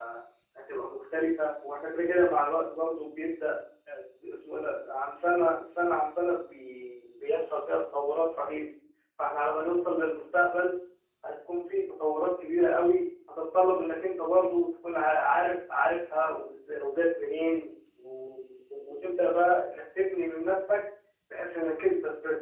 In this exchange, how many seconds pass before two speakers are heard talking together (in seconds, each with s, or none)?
none